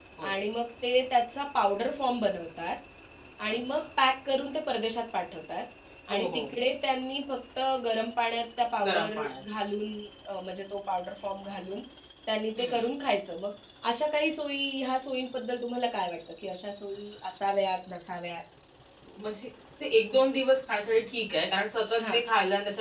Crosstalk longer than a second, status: none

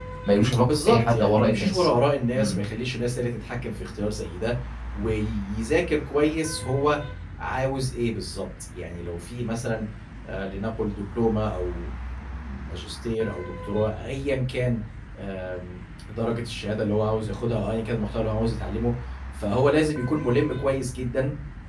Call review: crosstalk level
present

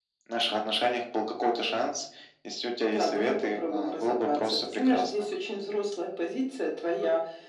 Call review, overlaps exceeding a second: present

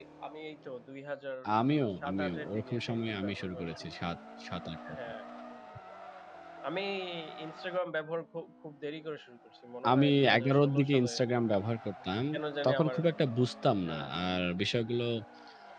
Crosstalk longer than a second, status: present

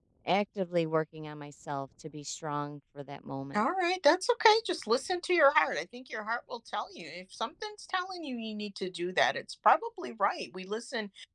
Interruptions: none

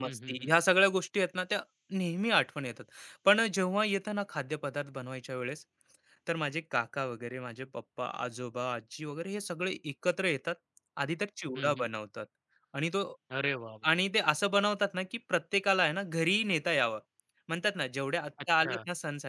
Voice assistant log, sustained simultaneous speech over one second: none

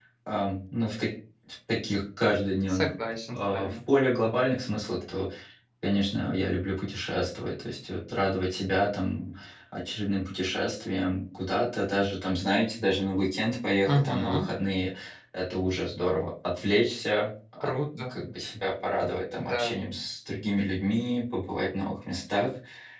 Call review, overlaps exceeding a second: none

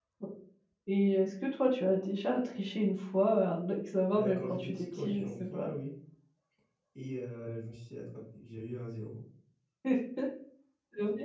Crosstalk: present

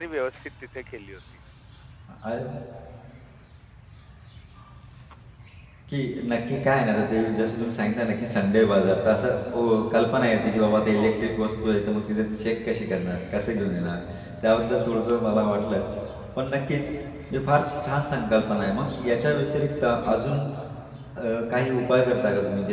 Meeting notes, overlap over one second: none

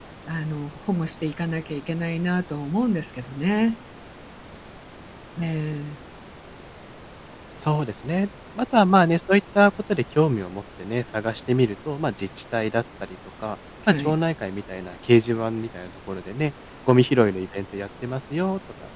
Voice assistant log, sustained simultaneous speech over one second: none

